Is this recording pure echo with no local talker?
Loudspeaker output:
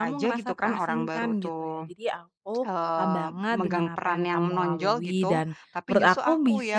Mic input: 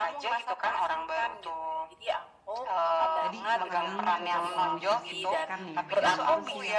No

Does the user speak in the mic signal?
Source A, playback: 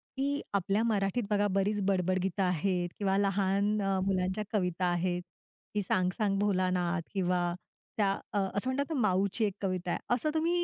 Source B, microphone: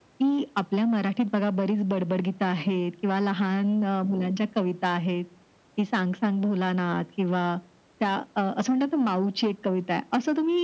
No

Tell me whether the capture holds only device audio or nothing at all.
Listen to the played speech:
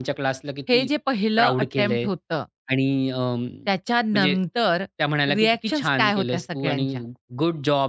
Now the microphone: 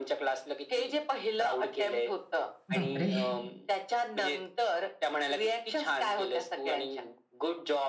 No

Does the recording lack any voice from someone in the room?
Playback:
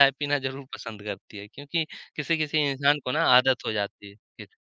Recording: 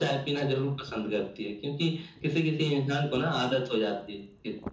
Yes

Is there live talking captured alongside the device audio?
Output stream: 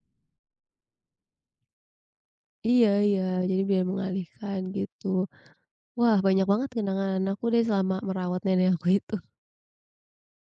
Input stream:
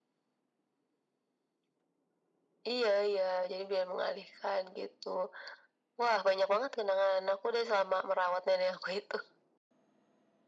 No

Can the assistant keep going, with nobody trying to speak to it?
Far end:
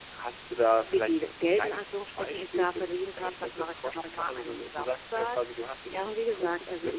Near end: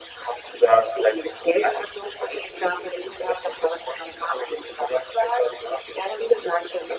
Yes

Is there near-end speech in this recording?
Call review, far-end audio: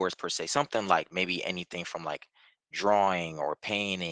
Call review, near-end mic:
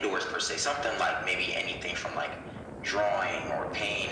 No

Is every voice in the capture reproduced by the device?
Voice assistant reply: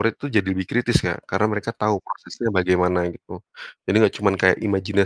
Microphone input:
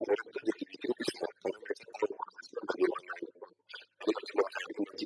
Yes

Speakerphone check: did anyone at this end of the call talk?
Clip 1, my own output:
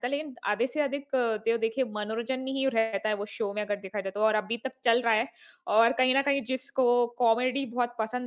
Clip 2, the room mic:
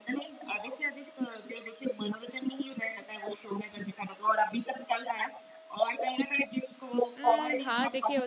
Yes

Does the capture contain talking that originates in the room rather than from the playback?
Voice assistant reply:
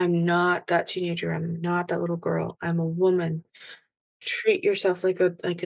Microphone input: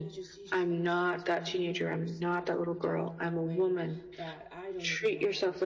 Yes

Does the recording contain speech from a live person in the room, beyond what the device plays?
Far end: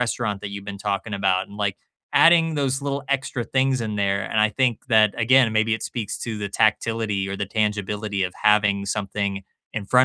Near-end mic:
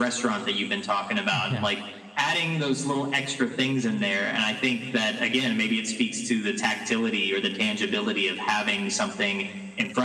Yes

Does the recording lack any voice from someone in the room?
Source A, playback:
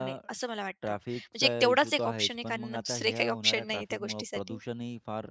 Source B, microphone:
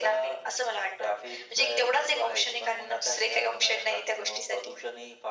Yes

